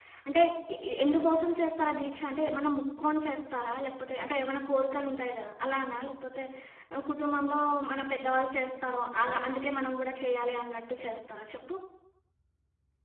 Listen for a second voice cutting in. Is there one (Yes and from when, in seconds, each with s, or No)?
No